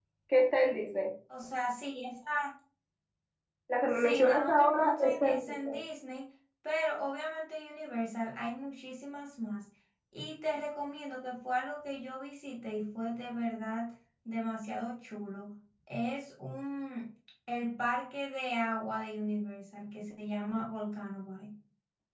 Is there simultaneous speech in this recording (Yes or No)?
Yes